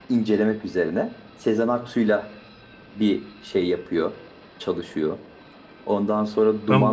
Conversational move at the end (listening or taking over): taking over